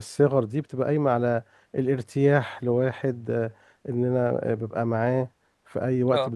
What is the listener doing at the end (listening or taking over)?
listening